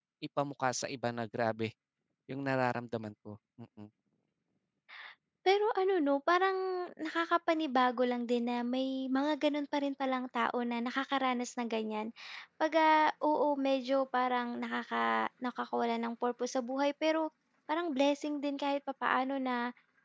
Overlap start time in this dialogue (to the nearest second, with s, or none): none